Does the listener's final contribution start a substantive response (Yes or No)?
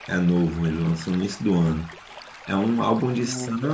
No